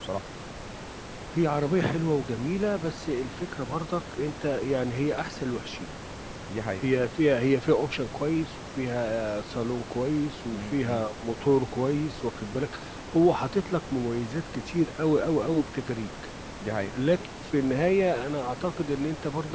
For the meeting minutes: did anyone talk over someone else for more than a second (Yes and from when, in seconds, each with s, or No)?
No